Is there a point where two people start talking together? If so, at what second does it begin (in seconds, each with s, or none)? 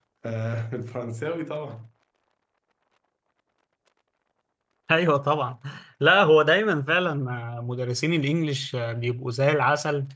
none